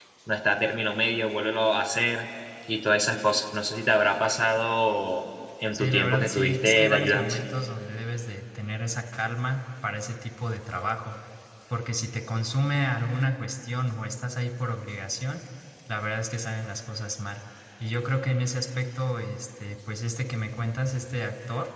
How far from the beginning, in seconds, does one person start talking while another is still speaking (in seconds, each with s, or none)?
5.7 s